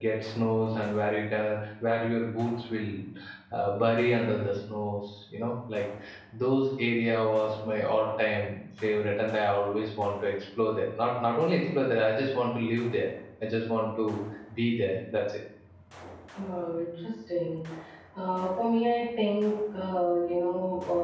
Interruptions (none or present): none